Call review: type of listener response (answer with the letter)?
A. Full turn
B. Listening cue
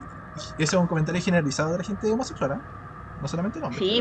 A